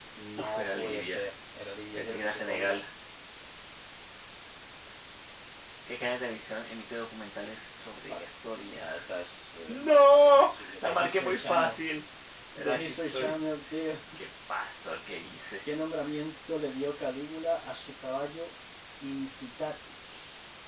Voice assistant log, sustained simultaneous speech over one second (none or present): present